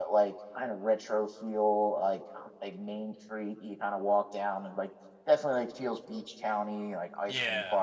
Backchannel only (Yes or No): No